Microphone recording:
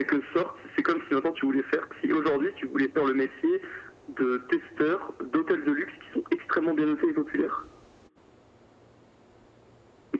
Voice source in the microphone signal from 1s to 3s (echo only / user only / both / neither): echo only